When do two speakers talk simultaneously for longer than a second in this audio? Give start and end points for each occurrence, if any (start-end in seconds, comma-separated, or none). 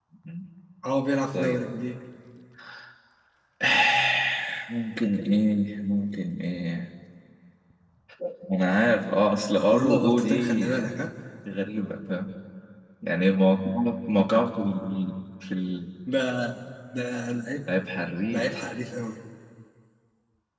9.7-11.0